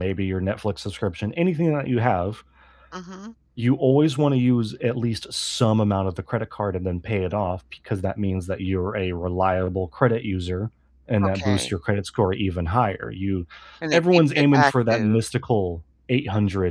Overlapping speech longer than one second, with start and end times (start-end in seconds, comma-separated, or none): 13.9-15.2